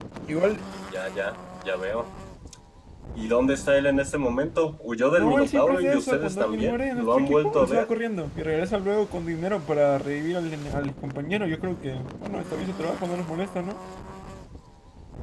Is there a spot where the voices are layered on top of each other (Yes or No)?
Yes